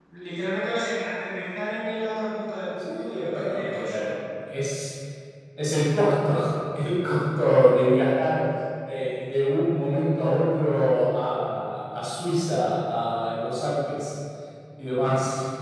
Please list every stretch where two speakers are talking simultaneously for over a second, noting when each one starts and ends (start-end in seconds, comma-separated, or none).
2.7-4.1